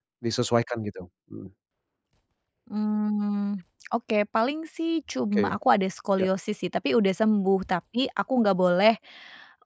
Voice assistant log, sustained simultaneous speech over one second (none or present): none